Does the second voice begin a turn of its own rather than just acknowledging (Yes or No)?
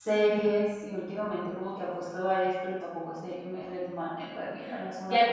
Yes